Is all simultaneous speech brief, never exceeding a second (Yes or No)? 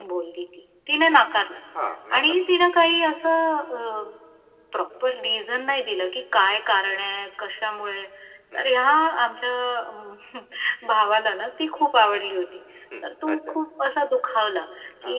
Yes